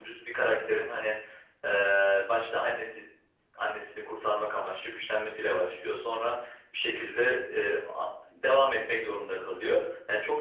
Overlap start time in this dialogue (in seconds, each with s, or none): none